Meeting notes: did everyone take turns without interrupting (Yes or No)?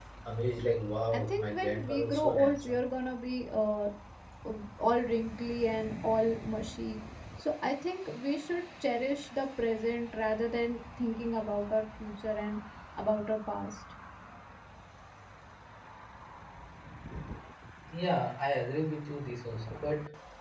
No